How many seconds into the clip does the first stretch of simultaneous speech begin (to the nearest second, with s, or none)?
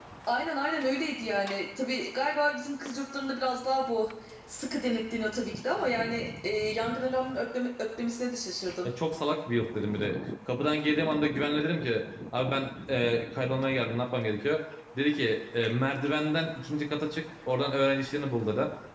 none